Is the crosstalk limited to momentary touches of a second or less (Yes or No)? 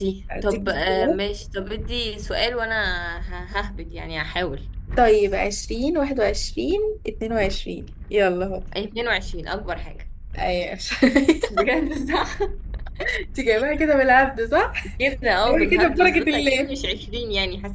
No